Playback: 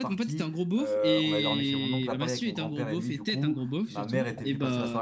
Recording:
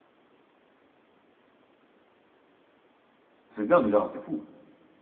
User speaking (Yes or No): Yes